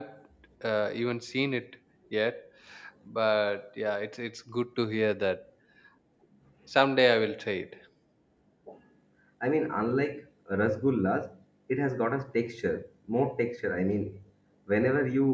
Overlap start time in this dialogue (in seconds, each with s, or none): none